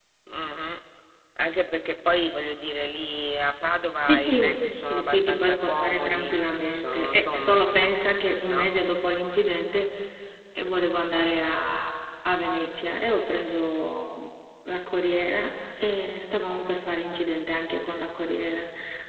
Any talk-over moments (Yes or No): Yes